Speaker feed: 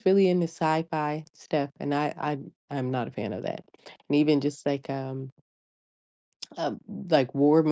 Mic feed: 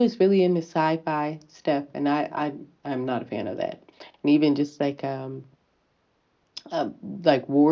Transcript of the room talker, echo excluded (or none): none